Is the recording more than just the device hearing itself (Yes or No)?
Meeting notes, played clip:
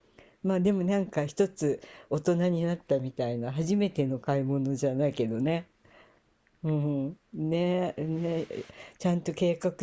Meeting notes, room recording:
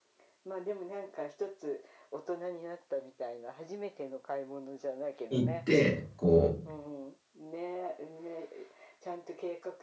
Yes